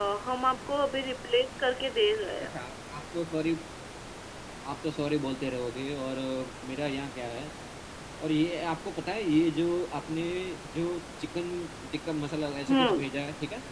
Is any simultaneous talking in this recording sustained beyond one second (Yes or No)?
No